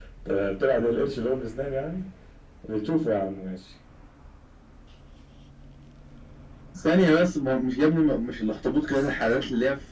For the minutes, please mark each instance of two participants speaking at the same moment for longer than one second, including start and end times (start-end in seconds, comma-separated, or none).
none